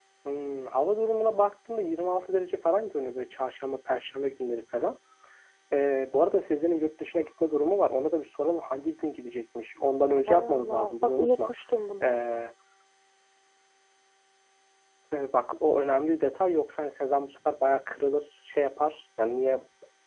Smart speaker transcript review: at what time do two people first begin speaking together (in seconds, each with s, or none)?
10.3 s